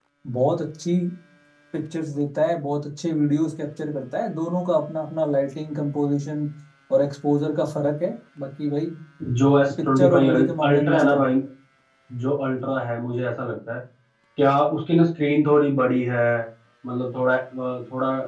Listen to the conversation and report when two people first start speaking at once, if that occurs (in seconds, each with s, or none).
9.8 s